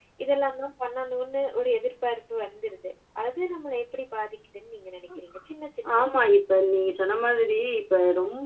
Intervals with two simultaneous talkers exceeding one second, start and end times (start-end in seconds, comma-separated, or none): none